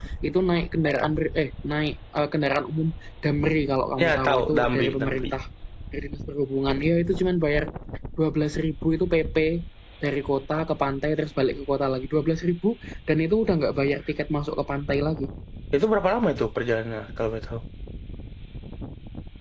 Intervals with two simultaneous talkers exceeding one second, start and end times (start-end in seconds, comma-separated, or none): 4.0-5.2